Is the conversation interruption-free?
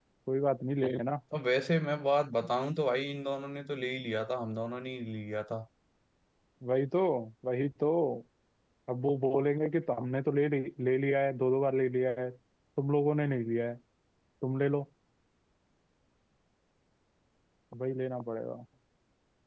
Yes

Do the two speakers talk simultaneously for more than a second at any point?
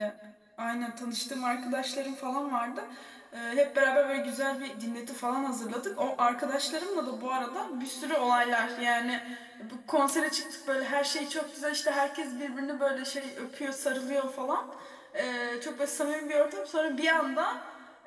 No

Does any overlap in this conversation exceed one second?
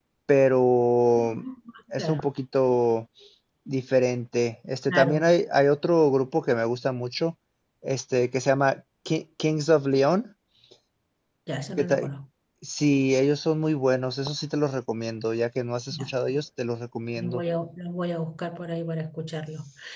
No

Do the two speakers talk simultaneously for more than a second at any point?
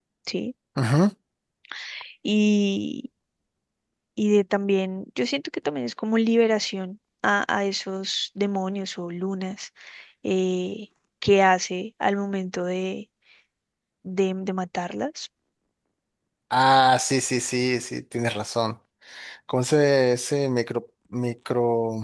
No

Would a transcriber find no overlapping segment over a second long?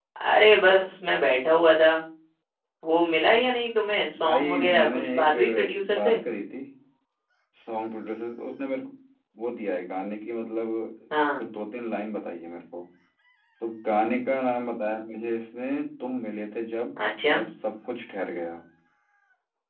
No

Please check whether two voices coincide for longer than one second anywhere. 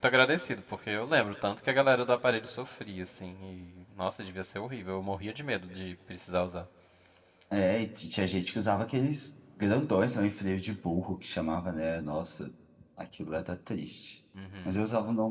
No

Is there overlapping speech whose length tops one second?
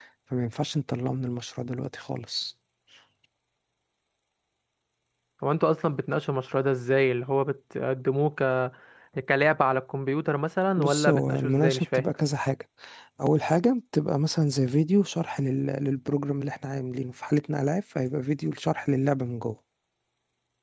Yes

